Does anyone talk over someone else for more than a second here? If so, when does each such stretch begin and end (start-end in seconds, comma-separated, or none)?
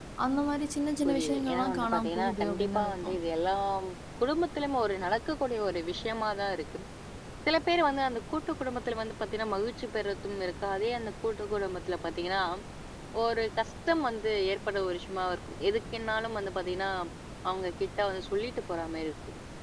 1.1-3.2